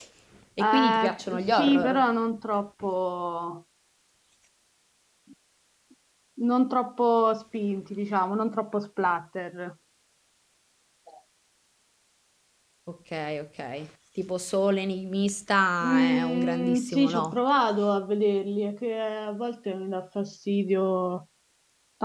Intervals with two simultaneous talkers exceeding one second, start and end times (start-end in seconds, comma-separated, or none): 0.6-2.0, 15.8-17.4